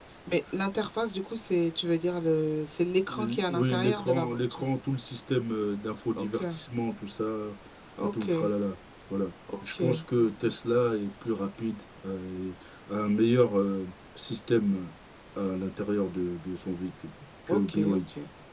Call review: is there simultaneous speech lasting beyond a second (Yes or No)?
Yes